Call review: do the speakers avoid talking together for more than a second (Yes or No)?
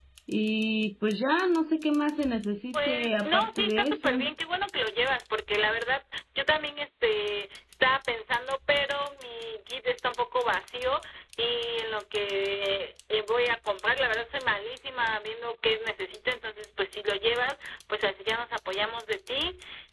No